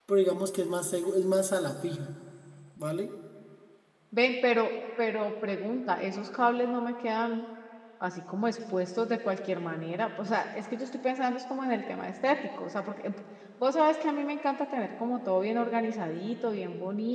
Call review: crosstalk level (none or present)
none